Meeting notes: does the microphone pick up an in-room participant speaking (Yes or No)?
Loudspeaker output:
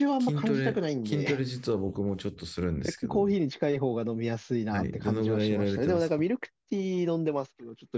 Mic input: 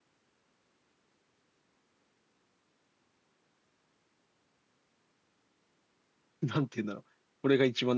Yes